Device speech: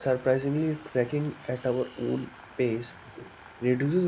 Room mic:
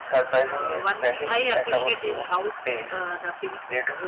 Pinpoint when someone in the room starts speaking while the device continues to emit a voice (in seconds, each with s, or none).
0.5 s